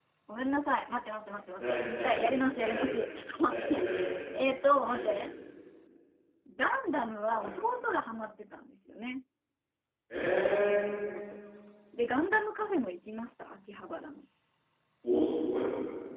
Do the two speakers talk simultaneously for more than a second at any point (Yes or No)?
Yes